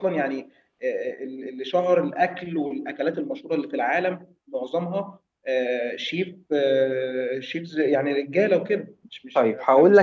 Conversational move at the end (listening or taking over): taking over